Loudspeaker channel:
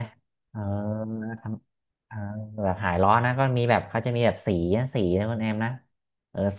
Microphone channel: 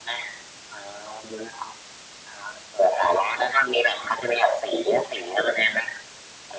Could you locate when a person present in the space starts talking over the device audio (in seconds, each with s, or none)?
none